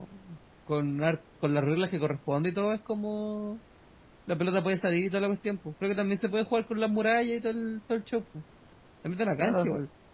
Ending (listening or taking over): taking over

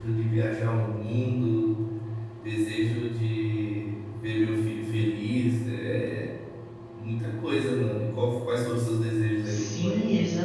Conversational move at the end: taking over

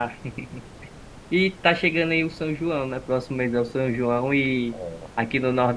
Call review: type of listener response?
listening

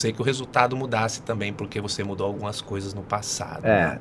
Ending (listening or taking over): taking over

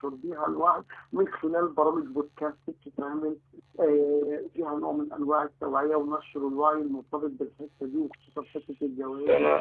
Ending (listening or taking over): taking over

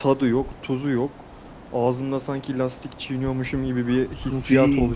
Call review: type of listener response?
taking over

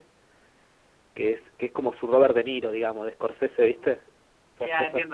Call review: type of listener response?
taking over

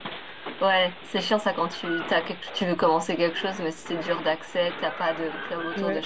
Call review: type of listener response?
taking over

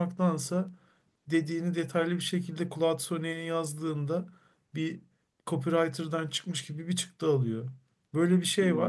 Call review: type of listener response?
listening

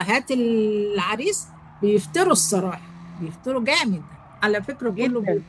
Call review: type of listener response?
listening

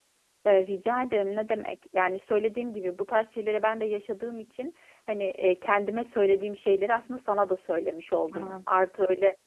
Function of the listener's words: listening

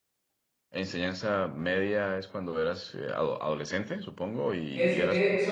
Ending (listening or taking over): taking over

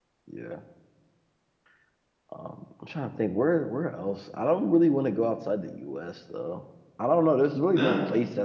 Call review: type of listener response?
listening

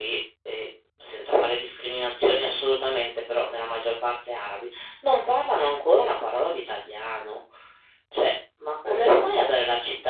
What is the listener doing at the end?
listening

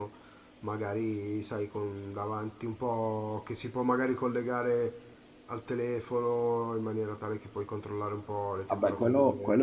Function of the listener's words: taking over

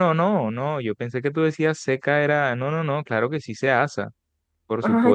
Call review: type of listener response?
taking over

